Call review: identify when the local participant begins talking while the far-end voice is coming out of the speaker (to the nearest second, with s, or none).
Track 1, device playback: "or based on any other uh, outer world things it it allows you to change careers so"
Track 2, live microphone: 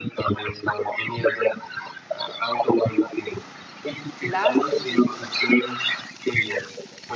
4 s